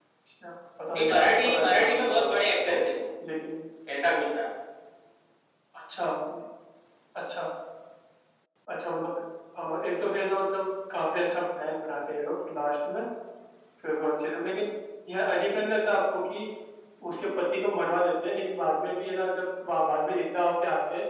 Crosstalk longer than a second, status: present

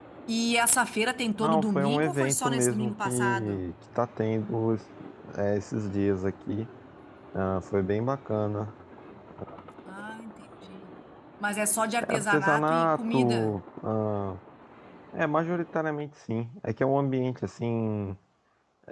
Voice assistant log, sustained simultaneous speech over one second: present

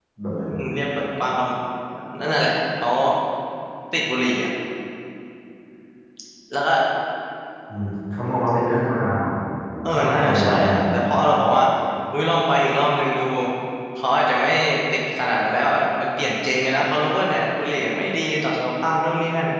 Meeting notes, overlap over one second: present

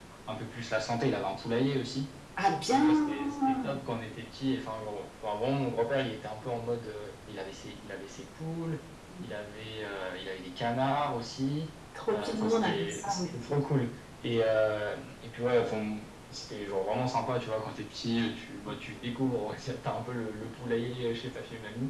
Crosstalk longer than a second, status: present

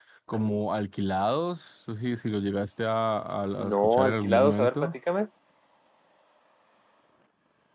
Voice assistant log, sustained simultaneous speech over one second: present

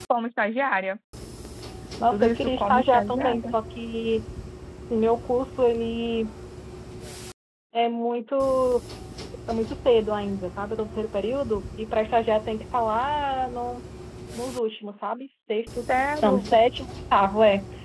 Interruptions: present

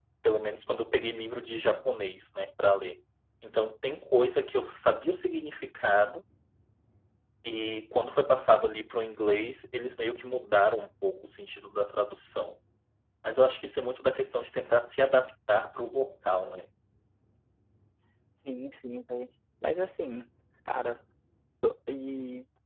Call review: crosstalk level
none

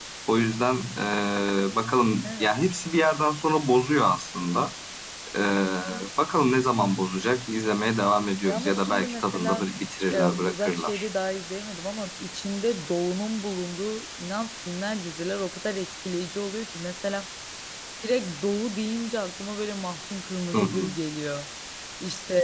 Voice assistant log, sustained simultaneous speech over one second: present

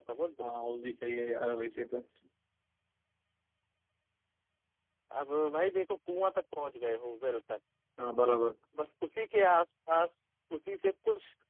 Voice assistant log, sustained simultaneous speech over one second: none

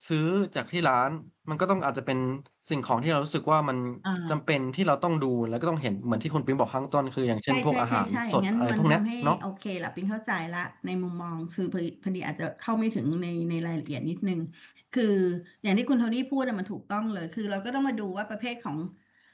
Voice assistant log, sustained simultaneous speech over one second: present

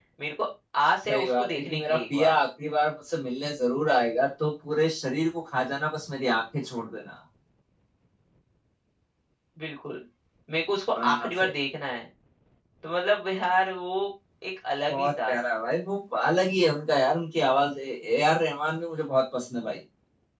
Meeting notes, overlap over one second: present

